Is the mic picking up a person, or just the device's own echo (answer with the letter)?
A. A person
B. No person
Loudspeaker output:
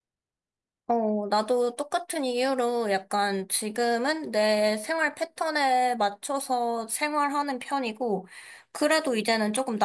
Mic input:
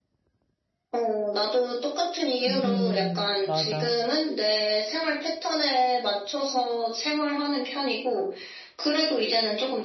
A